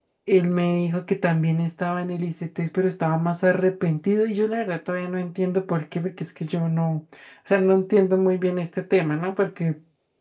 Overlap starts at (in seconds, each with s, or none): none